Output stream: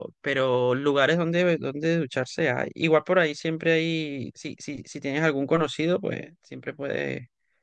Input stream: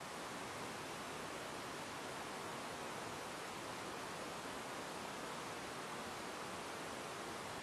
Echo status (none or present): none